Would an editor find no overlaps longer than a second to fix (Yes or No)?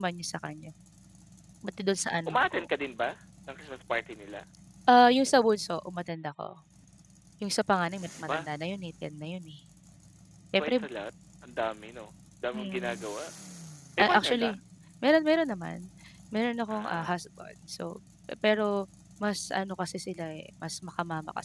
Yes